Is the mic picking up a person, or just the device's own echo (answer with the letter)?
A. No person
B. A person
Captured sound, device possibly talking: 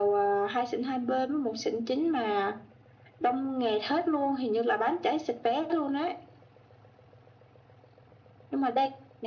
A